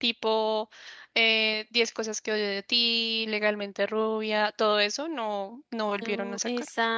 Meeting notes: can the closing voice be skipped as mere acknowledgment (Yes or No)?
No